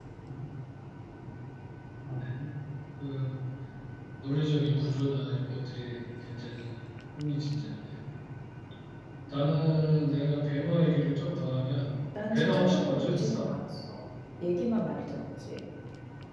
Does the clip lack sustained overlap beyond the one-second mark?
No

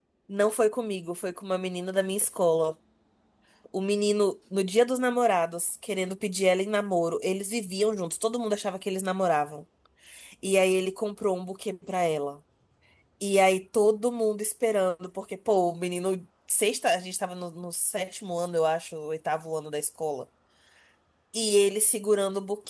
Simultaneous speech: No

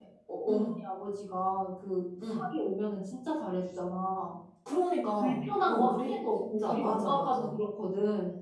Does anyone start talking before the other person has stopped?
Yes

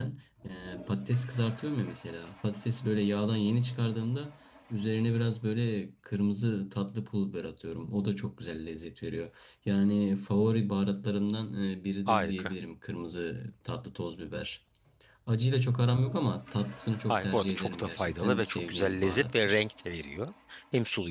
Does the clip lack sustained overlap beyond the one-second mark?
No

